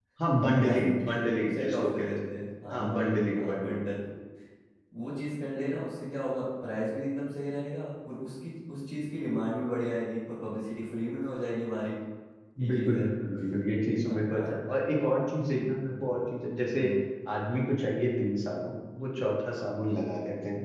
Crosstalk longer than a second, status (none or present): present